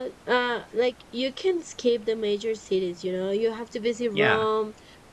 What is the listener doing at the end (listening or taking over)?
listening